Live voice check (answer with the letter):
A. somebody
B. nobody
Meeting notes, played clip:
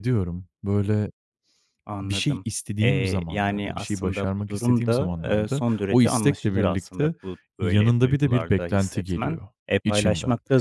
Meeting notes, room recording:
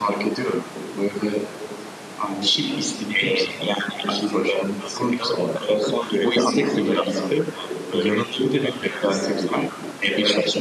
B